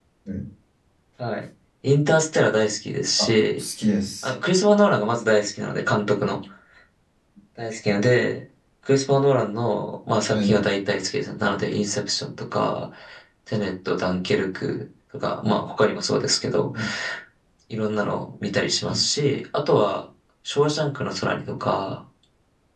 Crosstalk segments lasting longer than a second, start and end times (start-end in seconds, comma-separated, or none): none